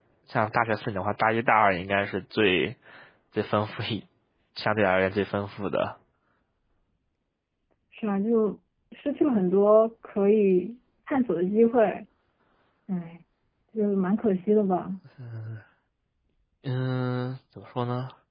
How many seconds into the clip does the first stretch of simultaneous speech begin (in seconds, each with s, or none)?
none